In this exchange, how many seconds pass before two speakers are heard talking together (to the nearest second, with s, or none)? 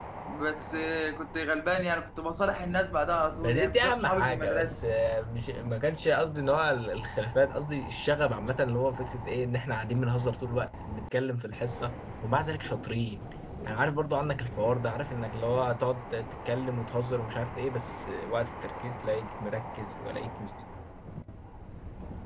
3 s